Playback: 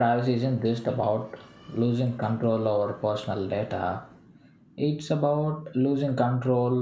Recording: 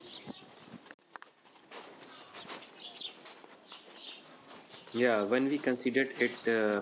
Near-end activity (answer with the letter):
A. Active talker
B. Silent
A